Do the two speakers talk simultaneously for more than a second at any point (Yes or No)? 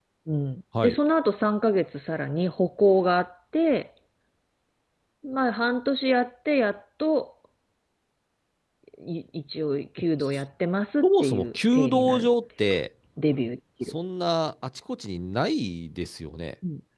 Yes